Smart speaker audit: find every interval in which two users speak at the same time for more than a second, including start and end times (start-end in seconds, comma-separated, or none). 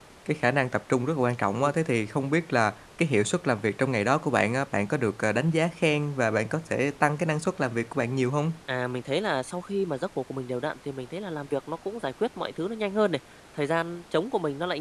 none